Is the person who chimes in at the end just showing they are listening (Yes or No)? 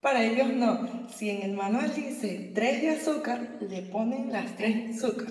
Yes